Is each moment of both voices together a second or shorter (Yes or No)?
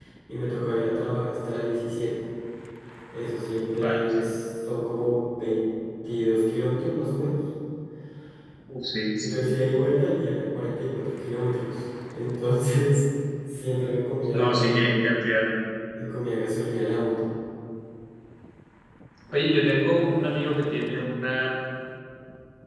Yes